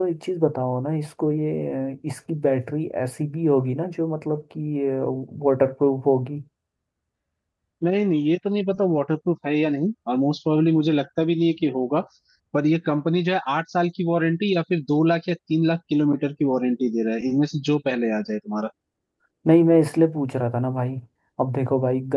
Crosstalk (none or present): none